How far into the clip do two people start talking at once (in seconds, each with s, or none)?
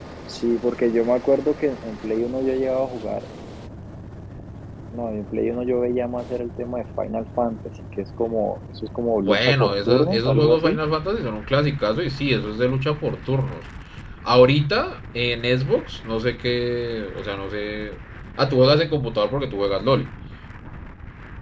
9.2 s